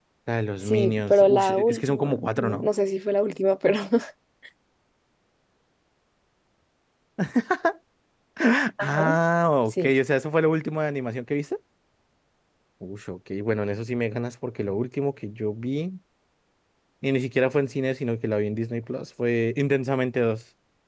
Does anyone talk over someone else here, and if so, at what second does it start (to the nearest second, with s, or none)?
1 s